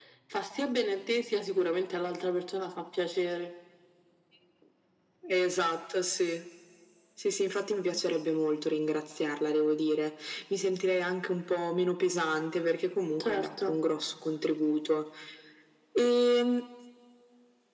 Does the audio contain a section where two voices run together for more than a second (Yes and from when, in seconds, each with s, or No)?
No